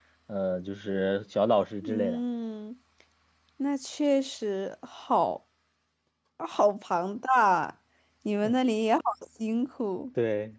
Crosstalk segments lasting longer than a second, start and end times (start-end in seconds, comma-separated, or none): none